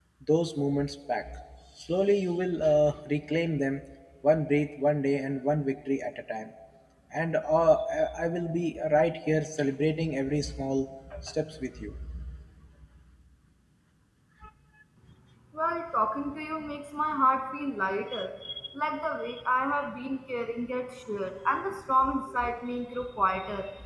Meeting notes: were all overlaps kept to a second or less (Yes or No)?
Yes